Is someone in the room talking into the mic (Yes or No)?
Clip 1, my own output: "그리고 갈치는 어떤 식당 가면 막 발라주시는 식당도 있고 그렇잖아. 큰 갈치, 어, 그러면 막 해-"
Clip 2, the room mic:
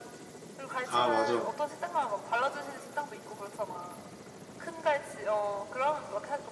Yes